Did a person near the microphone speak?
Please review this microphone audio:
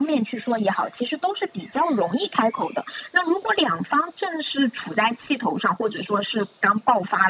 No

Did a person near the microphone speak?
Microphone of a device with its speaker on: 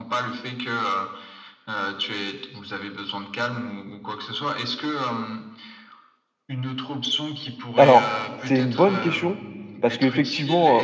Yes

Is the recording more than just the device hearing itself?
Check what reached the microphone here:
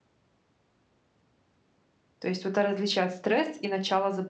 Yes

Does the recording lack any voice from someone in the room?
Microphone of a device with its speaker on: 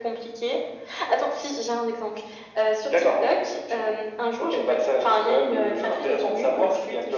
Yes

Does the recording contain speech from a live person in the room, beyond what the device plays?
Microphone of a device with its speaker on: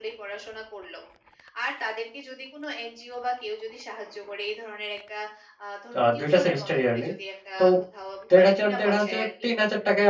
Yes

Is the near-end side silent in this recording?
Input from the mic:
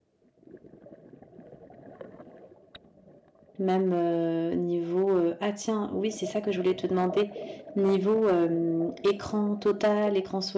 No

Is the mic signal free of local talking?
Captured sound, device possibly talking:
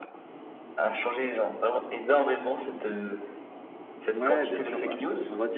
No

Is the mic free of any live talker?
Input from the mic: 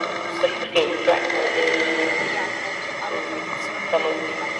No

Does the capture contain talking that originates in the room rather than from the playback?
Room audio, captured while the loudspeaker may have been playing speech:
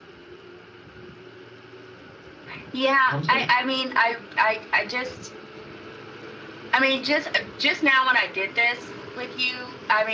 Yes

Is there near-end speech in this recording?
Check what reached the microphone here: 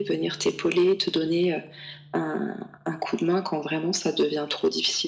No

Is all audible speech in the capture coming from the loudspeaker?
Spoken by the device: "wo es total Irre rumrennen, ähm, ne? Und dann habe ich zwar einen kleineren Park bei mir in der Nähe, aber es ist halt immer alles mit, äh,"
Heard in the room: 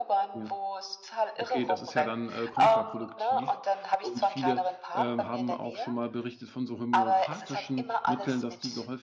No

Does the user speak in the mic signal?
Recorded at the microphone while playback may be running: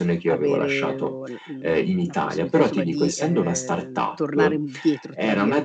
Yes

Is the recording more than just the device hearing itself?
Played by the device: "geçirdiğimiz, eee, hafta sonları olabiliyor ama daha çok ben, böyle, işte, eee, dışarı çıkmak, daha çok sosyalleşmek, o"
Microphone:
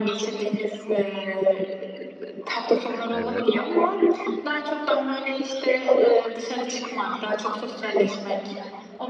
Yes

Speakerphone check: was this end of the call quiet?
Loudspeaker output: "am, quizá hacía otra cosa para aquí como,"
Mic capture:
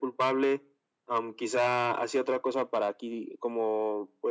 Yes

